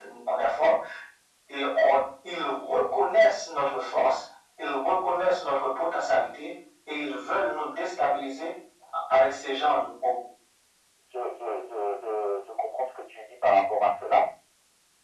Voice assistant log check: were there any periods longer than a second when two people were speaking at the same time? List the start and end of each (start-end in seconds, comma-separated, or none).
none